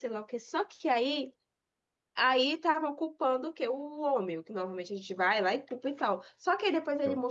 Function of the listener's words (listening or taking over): listening